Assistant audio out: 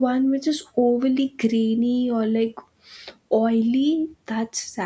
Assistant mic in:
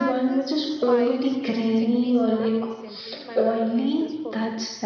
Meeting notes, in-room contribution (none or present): present